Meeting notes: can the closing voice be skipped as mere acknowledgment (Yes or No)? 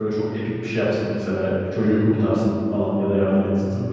No